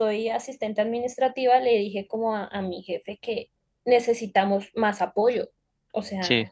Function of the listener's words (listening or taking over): listening